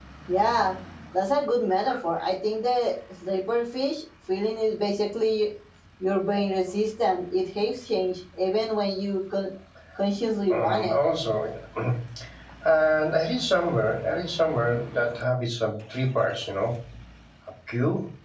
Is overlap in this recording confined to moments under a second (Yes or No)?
Yes